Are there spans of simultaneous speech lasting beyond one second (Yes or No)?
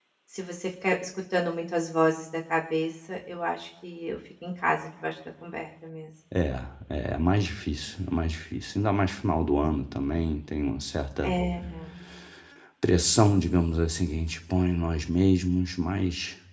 No